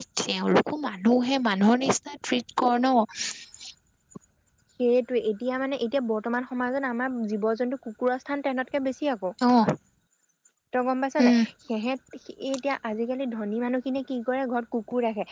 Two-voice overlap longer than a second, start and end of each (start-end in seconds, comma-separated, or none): none